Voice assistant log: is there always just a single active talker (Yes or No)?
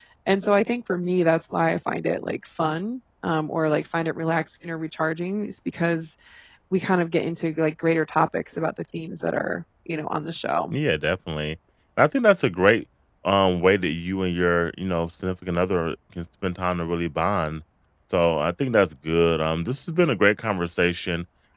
Yes